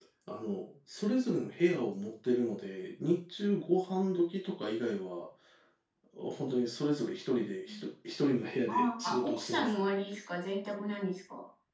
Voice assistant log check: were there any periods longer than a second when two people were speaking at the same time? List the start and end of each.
8.7-9.9

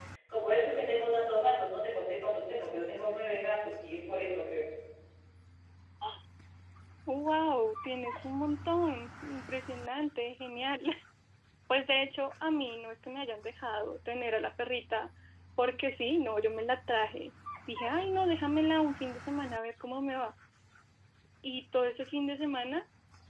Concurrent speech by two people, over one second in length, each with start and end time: none

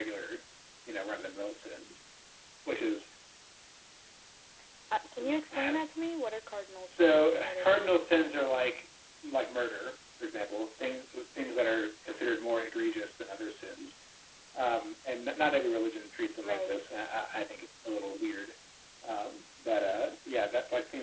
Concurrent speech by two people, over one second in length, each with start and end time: 6.9-8.6

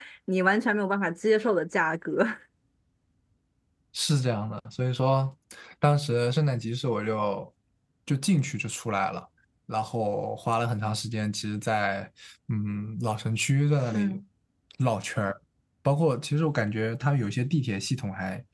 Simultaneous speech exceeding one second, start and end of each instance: none

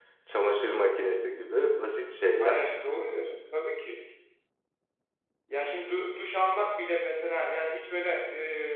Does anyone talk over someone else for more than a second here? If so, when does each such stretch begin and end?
none

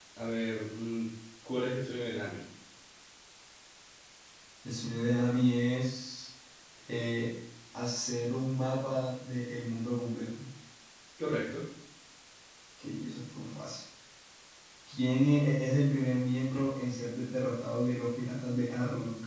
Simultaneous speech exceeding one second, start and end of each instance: none

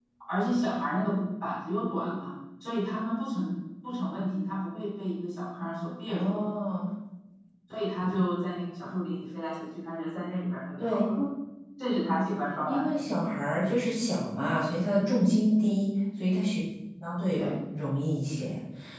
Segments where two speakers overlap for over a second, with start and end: none

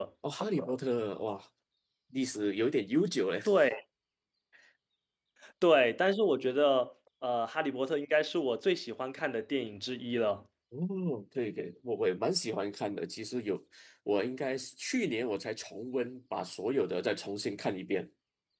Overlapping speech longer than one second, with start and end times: none

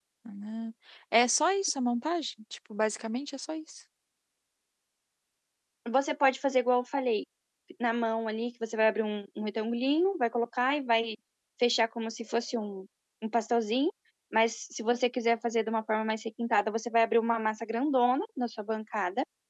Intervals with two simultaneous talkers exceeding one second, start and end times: none

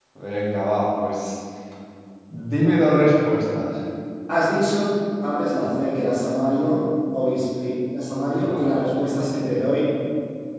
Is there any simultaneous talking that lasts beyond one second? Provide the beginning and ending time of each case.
none

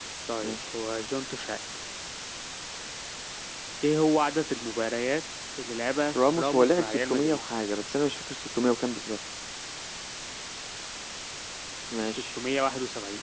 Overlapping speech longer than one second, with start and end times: 6.2-7.4

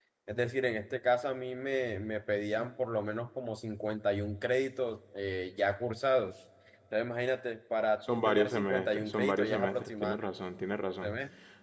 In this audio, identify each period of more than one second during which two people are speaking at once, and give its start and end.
8.1-10.2

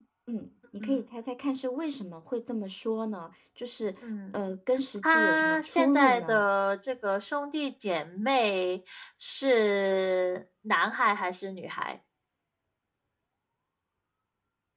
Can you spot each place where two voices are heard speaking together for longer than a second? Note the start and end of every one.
5.1-6.4

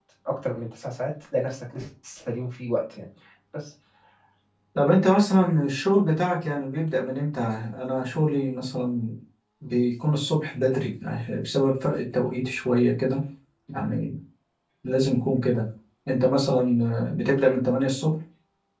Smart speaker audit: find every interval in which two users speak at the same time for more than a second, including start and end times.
none

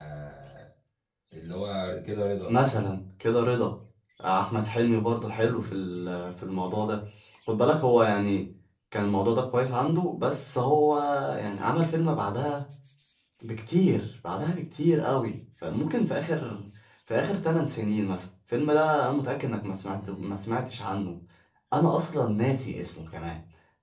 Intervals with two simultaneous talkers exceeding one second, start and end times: none

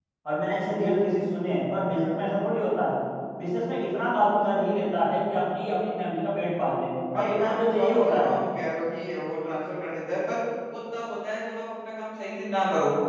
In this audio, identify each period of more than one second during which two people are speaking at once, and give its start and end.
7.1-8.4

